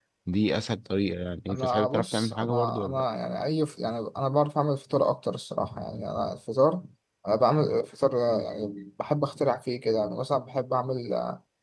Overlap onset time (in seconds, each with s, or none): 1.5 s